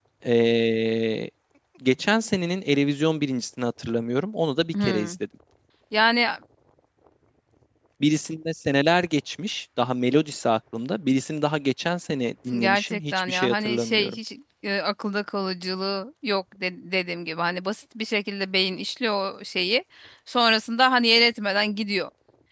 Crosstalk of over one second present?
Yes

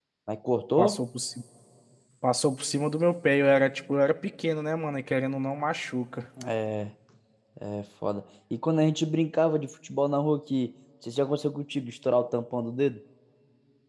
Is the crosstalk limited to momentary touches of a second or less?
Yes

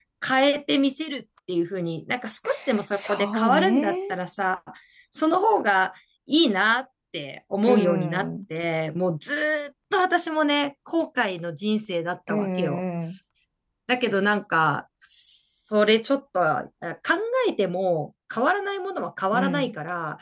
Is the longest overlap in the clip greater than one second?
Yes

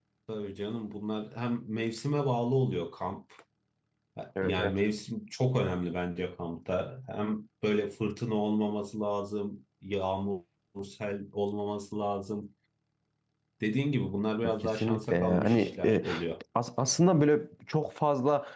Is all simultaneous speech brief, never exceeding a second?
No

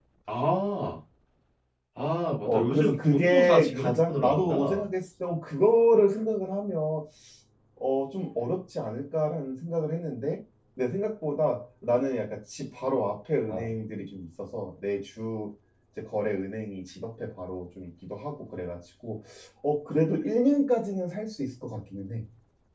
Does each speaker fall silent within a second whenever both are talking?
No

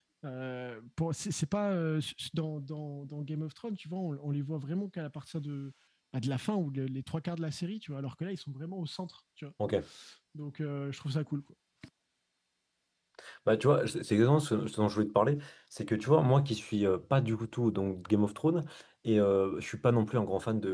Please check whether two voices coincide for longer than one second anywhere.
No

